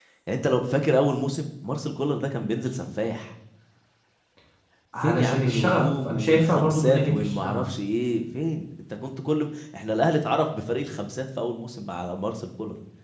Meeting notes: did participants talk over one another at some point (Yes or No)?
Yes